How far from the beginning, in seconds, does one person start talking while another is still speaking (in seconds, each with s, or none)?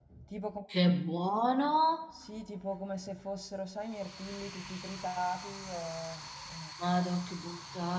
none